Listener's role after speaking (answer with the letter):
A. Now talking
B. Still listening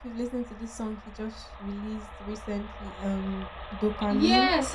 A